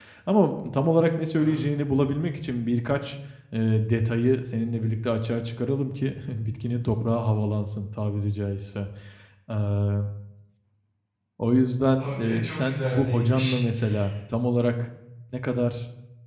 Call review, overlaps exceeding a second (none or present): present